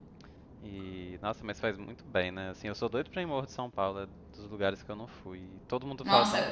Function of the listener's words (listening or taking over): taking over